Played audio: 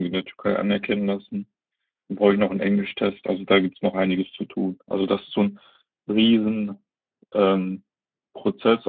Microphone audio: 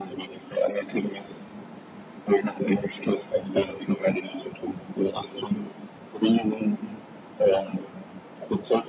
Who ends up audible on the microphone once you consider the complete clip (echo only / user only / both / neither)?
echo only